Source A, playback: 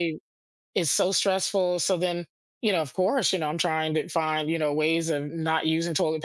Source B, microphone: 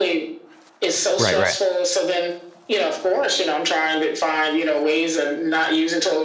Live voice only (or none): Right, right.